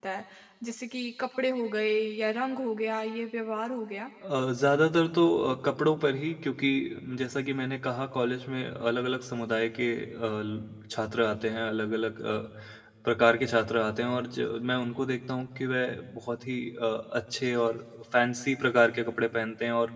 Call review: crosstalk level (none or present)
none